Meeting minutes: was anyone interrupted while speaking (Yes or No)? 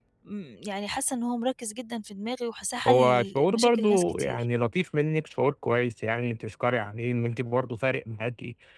Yes